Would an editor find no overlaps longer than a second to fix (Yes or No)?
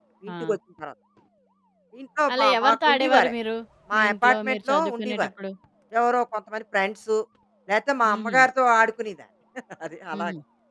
No